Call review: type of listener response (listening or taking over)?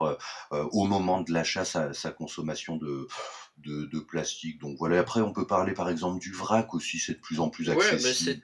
taking over